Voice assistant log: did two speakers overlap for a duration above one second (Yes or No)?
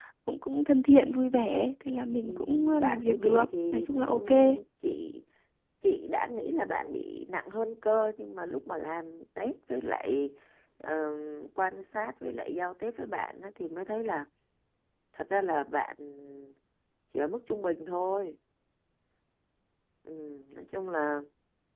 Yes